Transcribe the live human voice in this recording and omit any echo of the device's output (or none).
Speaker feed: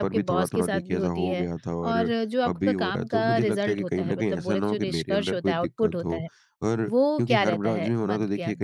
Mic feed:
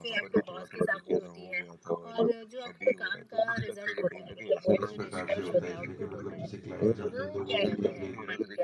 इस प्रकार से होता है इसमें कि मतलब जैसे क्लाइंट्स आते हैं तो वो देखिए अपनी